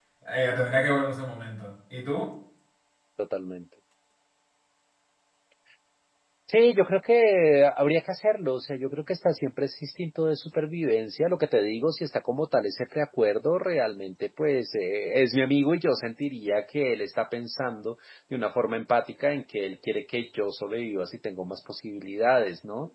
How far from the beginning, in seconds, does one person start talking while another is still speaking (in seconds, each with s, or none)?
none